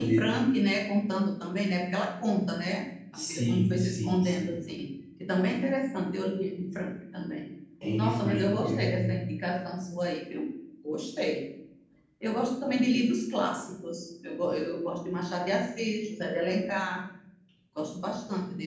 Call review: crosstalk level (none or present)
present